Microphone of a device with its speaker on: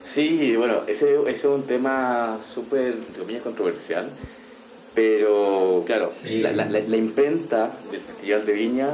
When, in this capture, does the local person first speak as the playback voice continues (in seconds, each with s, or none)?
6.1 s